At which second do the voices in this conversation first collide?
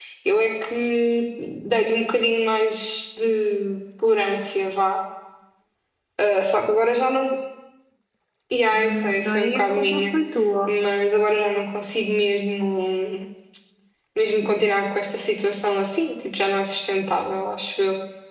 8.7 s

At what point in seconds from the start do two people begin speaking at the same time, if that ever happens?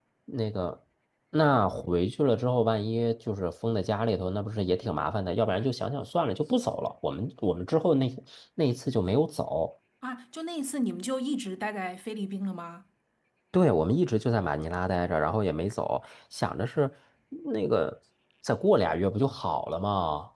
none

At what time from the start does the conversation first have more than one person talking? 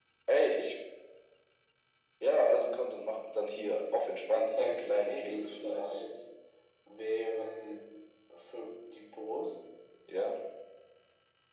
4.3 s

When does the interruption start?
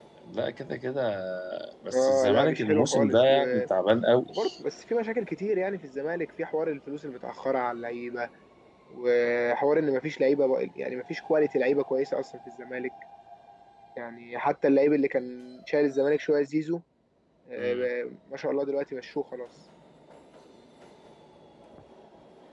1.9 s

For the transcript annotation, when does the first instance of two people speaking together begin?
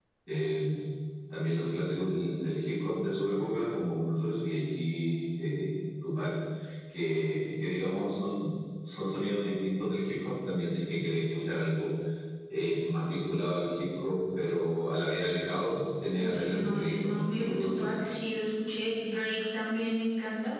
16.1 s

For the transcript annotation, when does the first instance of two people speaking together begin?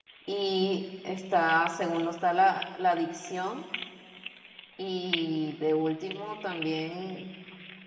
none

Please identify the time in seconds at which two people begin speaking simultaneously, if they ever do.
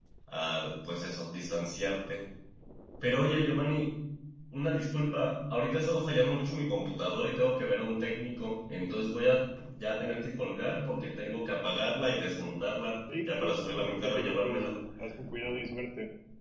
13.1 s

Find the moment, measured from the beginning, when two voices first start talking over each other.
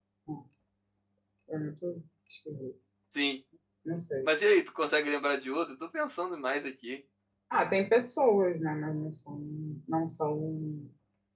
none

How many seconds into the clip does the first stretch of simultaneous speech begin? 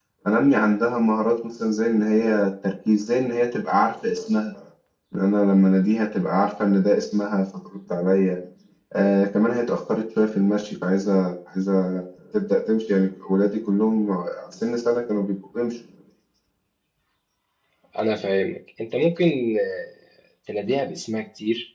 none

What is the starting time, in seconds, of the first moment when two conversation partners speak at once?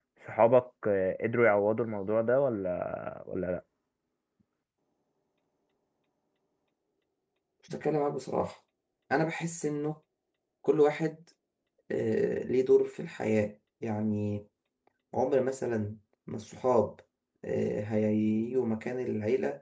none

